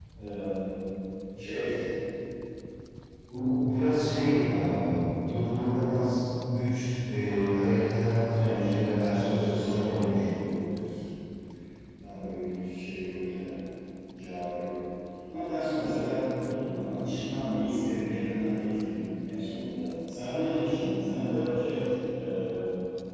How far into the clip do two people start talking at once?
8.4 s

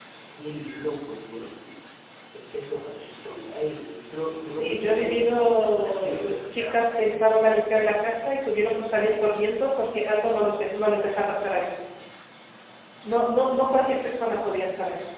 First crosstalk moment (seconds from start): 4.5 s

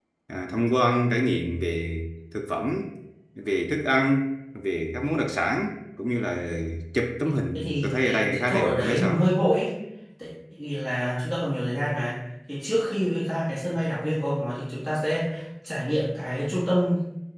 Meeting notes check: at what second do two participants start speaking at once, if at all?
7.5 s

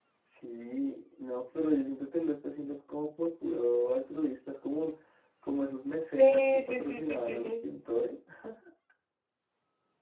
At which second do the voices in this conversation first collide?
6.2 s

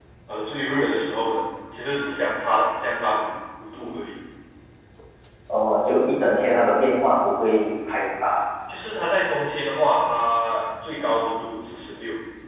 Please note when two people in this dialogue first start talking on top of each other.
none

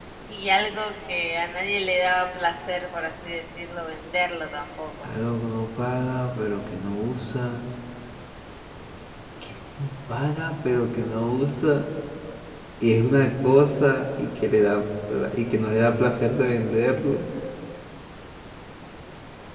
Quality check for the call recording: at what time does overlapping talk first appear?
none

